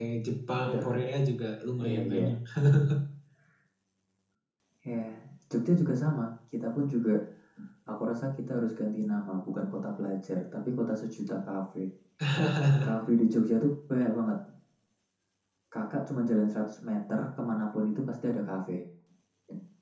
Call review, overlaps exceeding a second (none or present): none